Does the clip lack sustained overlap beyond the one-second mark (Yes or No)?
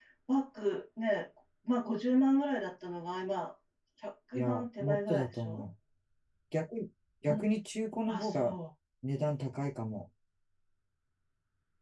No